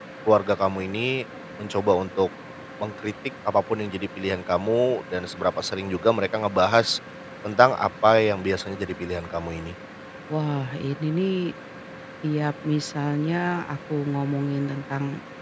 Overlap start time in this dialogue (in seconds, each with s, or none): none